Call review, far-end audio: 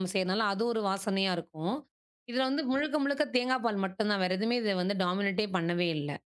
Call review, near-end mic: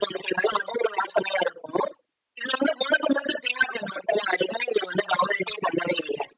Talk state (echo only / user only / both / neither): echo only